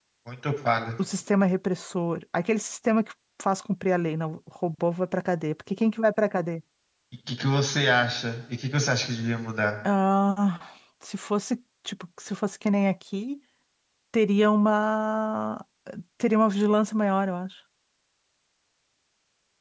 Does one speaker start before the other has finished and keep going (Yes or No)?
No